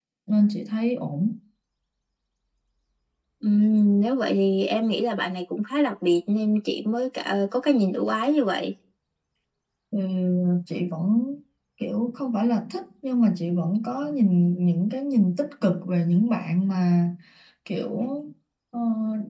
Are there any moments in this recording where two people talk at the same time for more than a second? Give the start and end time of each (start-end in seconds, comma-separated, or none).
none